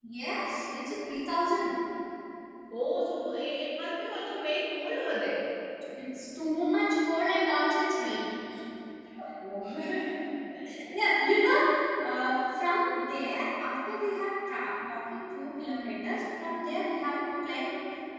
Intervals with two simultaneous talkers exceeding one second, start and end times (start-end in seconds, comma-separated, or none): none